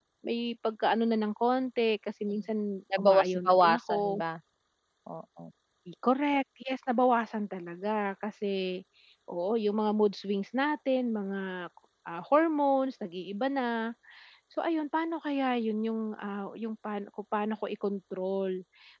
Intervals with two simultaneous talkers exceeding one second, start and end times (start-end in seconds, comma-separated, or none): 3.0-4.2